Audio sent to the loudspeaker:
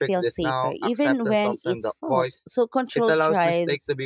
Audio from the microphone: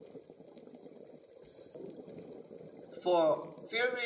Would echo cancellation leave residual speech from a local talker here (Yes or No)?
Yes